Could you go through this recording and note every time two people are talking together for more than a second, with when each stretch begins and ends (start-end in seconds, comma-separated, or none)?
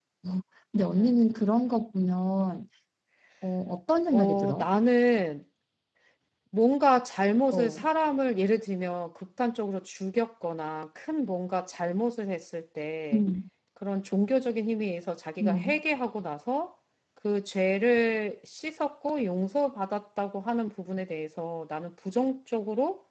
none